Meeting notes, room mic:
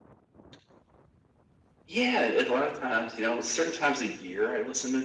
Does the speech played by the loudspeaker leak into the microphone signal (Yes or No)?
Yes